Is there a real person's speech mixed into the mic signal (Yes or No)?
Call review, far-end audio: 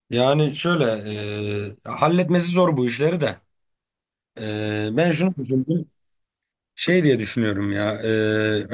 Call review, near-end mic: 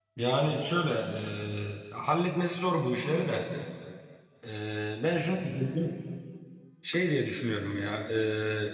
No